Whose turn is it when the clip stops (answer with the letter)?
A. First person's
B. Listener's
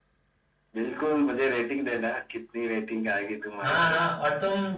B